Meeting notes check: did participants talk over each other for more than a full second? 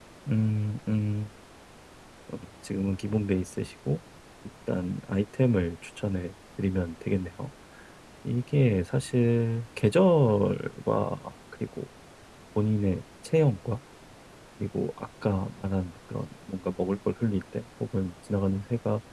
No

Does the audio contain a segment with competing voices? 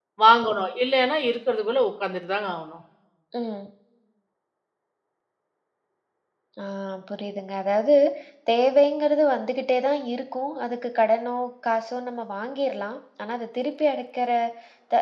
No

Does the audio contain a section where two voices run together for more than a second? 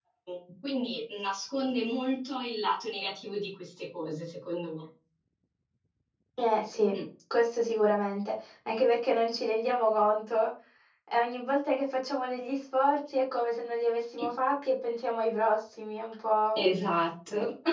No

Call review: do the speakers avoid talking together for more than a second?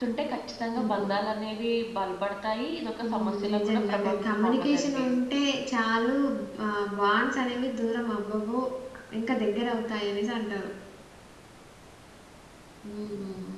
No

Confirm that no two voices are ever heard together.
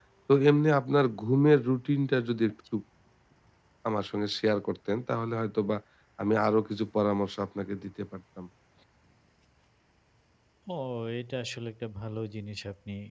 Yes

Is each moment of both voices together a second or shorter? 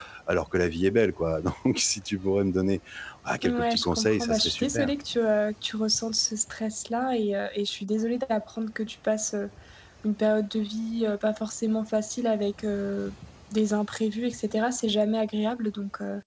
No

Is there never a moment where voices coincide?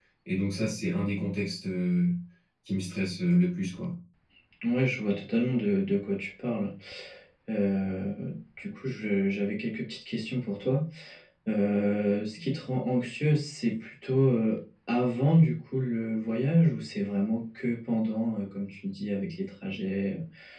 Yes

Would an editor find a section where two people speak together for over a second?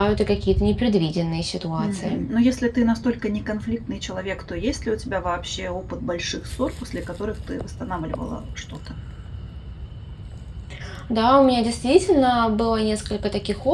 No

